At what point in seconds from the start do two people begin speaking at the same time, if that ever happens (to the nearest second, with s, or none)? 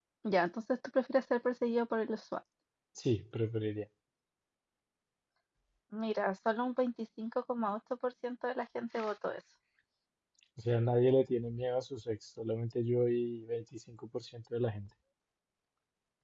none